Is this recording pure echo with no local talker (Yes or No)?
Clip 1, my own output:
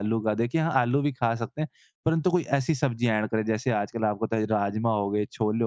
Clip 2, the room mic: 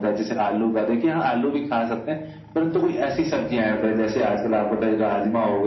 Yes